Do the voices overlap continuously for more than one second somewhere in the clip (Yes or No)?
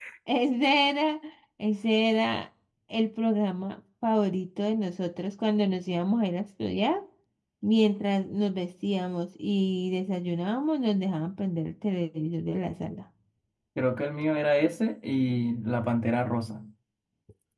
No